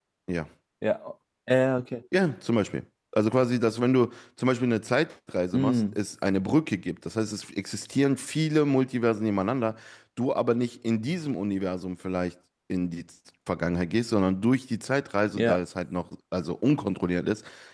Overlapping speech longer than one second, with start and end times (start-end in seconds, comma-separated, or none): none